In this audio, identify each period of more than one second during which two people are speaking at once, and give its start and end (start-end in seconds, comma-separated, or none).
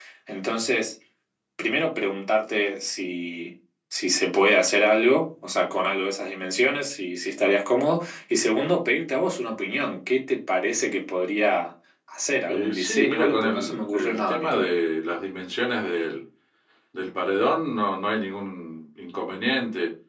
12.5-14.8